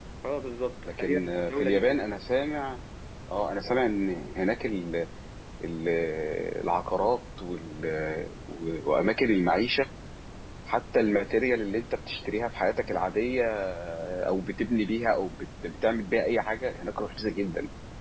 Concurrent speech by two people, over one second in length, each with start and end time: 0.8-2.1

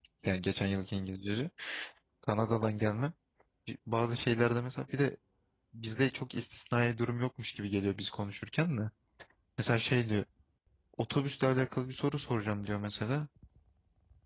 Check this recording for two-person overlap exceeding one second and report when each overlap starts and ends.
none

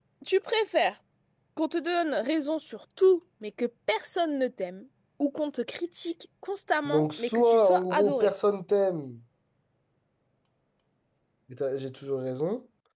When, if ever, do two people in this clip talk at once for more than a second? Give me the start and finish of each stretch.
6.8-8.3

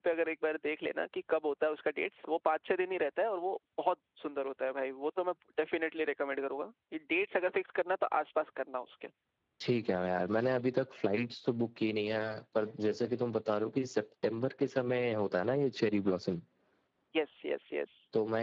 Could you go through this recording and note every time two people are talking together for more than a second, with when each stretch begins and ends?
none

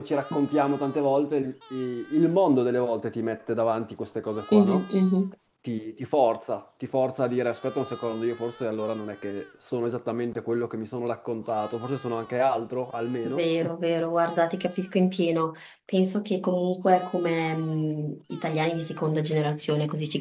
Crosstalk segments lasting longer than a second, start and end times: none

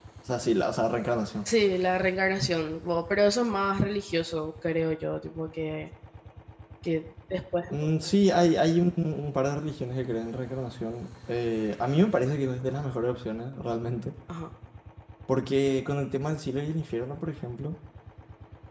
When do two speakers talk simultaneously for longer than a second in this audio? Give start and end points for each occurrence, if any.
none

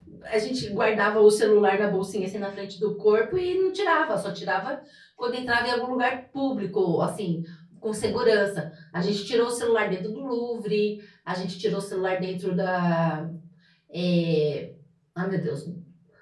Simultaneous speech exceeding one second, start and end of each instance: none

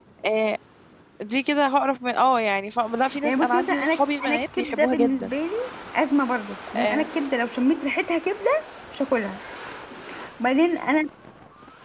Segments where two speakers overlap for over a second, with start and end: 3.2-5.3

